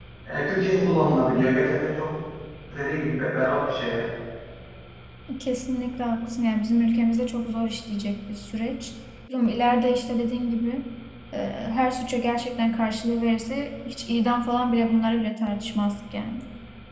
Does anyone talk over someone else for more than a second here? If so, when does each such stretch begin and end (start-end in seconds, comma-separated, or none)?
none